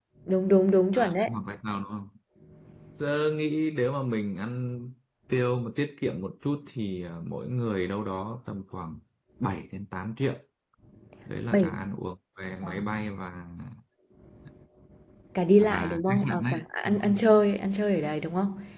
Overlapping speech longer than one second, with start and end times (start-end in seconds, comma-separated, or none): 15.6-17.1